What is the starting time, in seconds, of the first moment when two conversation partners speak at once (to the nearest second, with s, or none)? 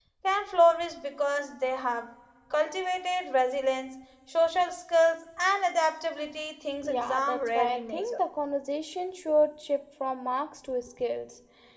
7 s